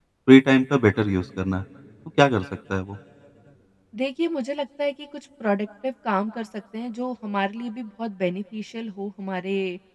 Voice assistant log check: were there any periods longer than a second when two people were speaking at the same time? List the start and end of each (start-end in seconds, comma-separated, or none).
none